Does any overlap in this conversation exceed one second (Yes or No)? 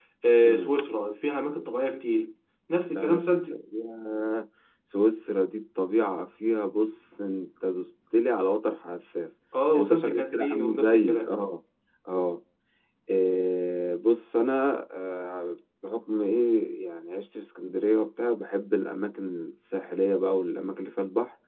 Yes